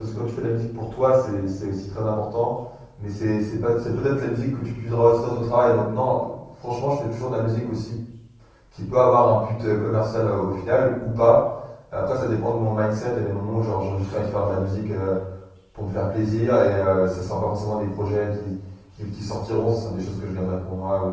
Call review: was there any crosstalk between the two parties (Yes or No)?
No